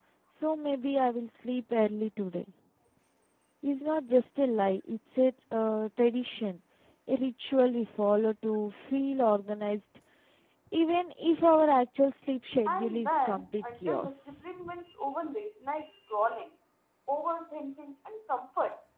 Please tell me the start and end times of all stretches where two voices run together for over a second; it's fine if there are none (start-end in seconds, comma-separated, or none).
12.7-14.5